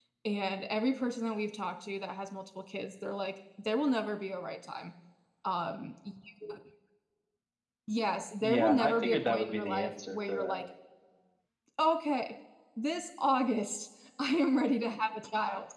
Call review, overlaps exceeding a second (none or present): present